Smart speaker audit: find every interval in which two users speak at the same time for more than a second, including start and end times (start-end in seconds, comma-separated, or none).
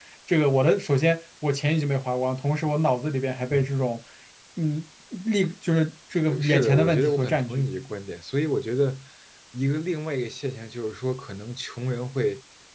6.3-7.7